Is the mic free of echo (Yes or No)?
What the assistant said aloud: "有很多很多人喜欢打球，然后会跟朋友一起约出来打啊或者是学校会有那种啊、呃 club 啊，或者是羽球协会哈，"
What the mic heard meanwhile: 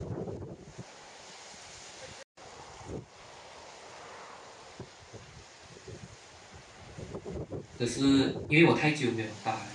Yes